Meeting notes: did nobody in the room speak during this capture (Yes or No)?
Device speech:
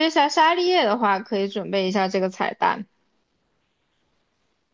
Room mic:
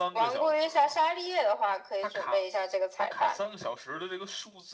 No